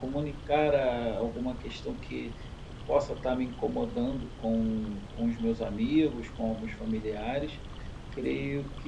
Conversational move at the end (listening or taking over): listening